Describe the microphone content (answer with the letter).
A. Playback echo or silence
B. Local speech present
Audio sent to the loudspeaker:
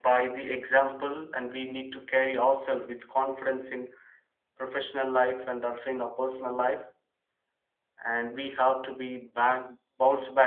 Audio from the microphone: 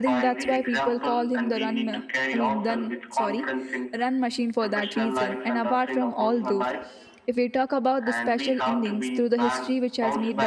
B